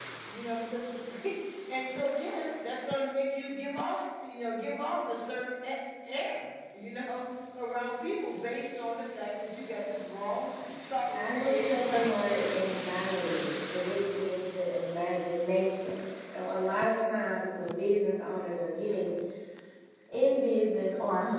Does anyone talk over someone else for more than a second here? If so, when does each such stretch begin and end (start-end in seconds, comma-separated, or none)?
11.1-12.5